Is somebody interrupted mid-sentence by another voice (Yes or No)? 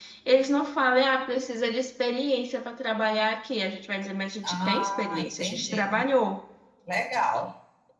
Yes